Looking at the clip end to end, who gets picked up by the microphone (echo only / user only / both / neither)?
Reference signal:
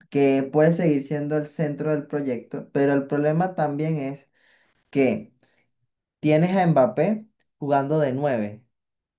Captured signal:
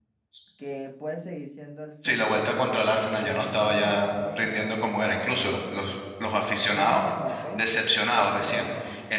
both